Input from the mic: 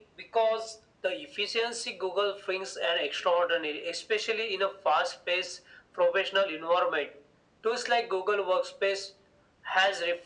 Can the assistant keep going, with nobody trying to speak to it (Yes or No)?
Yes